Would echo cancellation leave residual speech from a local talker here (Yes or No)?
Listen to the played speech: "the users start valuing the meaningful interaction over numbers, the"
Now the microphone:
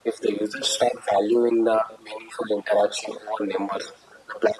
No